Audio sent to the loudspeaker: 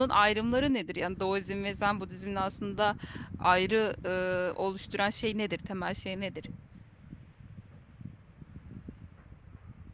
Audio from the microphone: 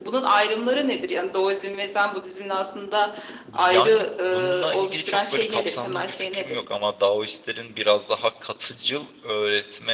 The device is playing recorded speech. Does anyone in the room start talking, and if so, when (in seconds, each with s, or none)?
3.5 s